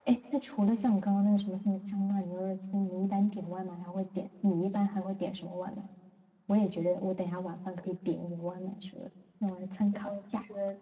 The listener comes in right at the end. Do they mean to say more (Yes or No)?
Yes